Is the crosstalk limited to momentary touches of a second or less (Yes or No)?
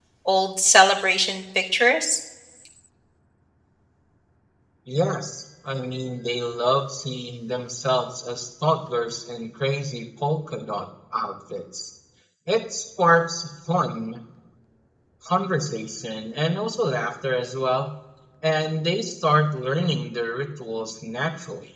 Yes